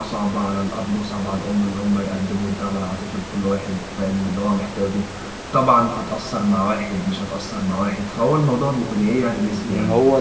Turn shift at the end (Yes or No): Yes